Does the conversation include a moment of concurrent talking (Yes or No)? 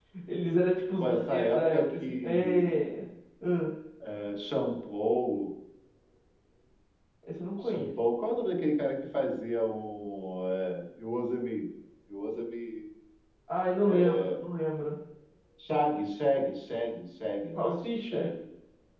Yes